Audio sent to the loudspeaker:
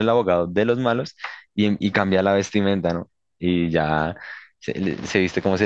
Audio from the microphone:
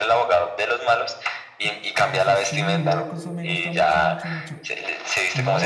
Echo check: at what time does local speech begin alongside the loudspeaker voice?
1.6 s

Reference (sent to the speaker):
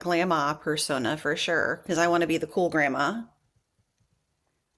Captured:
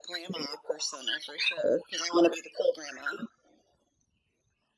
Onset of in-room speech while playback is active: none

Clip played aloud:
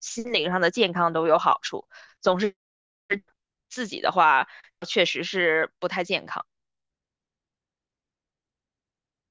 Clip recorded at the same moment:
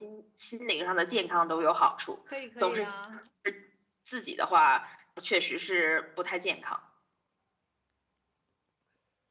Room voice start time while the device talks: 2.2 s

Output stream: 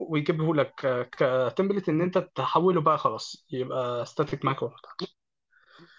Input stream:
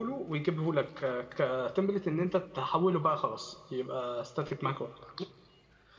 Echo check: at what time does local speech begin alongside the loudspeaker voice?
none

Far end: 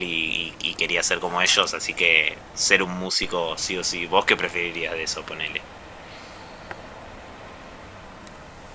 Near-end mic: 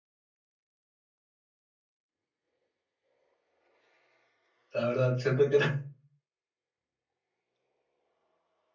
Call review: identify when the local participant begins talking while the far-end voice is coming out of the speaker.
4.7 s

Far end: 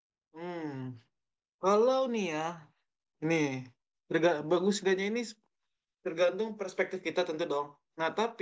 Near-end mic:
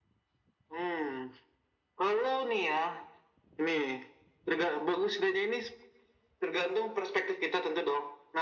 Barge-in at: none

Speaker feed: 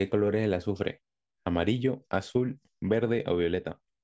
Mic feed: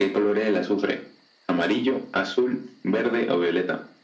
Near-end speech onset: none

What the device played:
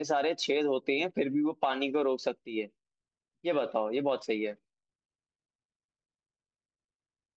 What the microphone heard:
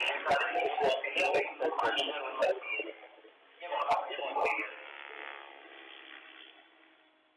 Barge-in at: 1.5 s

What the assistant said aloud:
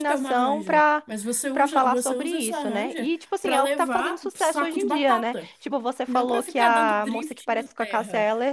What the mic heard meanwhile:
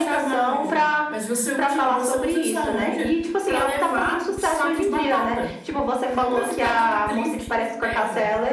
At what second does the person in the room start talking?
none

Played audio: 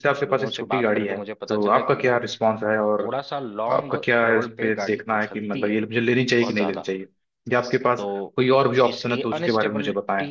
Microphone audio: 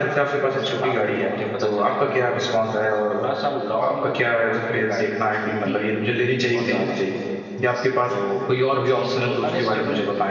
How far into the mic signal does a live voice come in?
none

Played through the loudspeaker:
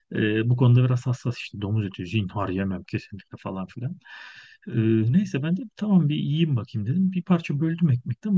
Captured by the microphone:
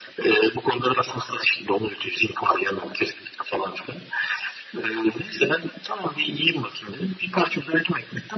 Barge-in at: none

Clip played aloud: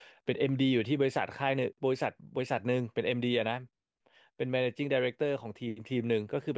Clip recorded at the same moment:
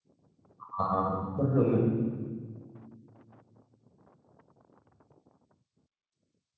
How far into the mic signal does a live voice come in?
0.6 s

